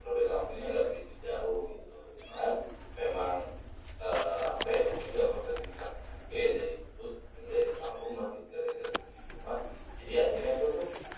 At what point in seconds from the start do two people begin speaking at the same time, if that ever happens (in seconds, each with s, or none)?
none